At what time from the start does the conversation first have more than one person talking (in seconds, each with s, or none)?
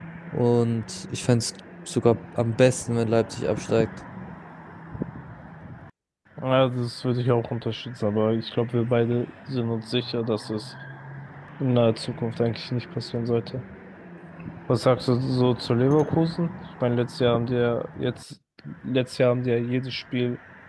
none